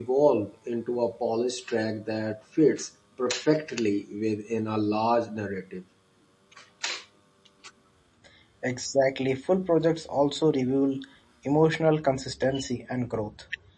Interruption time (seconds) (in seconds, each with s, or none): none